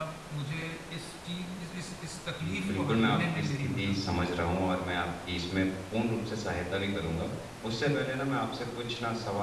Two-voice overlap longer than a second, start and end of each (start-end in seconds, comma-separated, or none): 2.4-4.0